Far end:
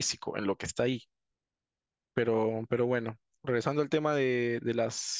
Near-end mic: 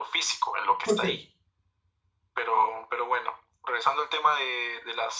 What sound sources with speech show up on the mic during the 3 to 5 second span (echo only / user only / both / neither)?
echo only